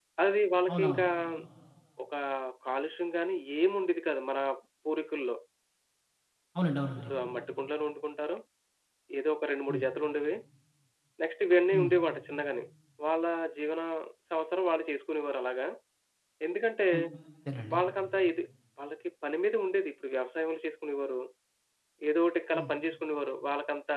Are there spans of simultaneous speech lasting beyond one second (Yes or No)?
No